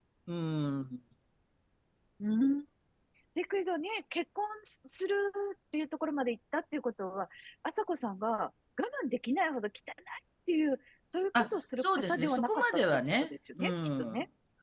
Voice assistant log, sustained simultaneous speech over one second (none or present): present